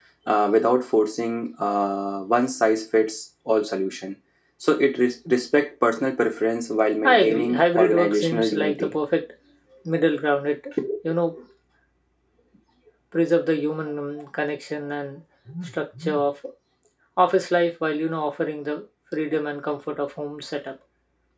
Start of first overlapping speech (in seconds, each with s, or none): 7.0 s